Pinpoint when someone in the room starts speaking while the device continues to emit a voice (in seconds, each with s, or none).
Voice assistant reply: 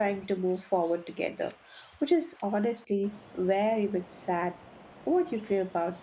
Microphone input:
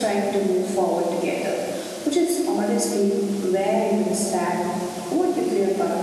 none